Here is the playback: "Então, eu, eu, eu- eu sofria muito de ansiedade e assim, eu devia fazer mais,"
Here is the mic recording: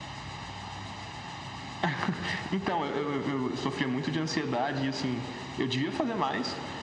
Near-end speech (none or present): none